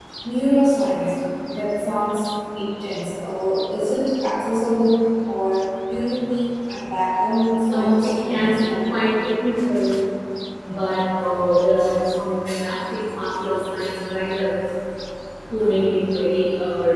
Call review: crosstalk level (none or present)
present